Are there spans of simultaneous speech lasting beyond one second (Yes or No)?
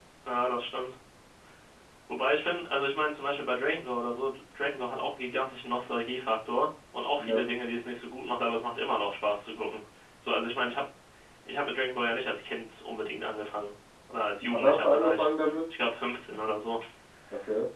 Yes